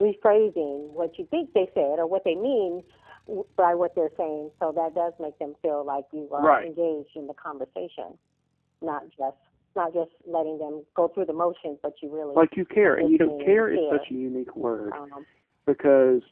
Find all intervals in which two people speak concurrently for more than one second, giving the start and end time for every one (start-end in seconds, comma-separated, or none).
12.8-14.1